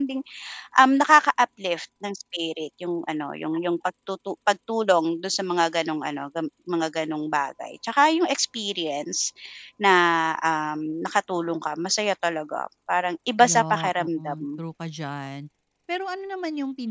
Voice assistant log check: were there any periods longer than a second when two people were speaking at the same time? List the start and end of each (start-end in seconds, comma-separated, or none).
13.4-14.6